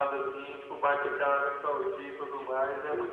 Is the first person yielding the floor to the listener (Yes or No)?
Yes